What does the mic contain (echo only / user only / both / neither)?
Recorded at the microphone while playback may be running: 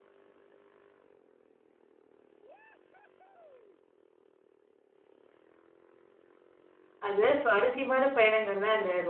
user only